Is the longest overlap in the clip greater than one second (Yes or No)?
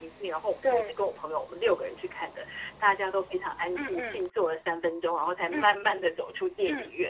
No